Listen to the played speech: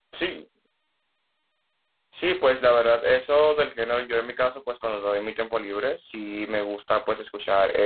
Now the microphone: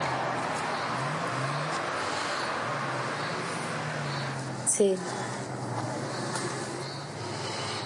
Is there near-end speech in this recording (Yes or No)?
Yes